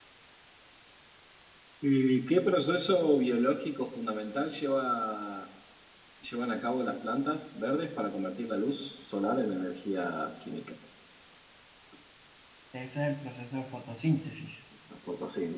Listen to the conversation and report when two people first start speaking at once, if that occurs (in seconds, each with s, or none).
none